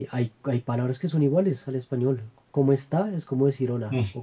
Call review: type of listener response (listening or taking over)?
listening